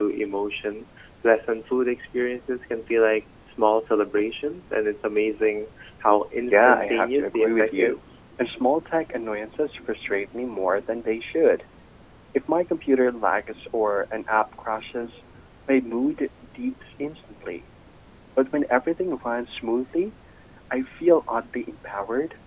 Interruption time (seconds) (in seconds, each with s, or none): 6.5 s